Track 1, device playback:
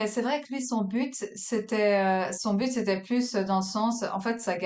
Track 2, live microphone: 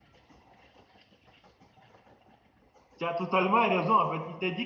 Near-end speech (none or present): present